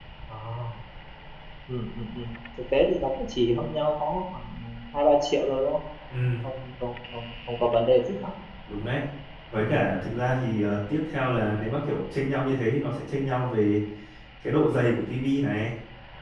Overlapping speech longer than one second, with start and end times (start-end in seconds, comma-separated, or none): none